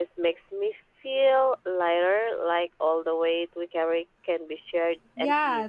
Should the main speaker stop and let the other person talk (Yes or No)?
Yes